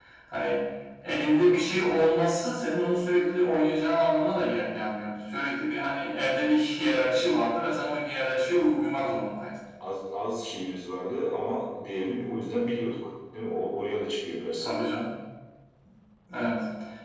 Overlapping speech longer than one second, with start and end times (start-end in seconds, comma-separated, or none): none